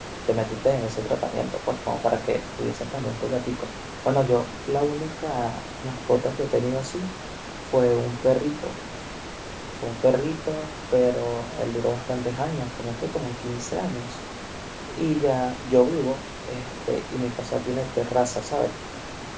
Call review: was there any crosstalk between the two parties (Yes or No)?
No